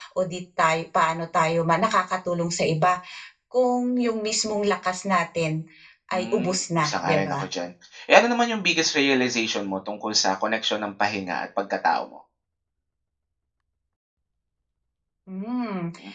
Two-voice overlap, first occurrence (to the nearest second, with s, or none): 6 s